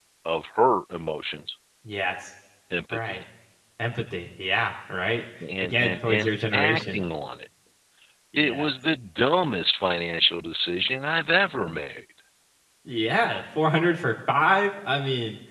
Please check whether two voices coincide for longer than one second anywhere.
Yes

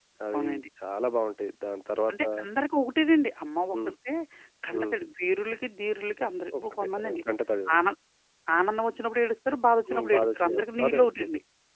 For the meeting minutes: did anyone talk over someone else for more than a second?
Yes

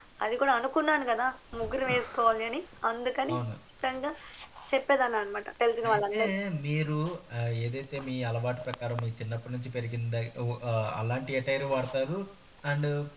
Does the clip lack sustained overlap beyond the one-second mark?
Yes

